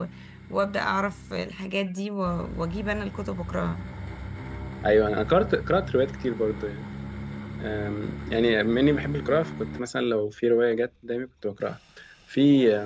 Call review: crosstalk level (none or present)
none